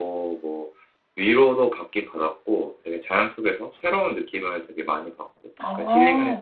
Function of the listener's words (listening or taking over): taking over